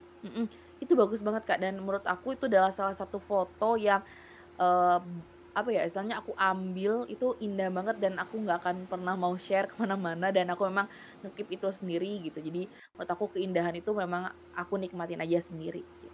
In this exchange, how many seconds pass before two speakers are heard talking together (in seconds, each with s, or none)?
none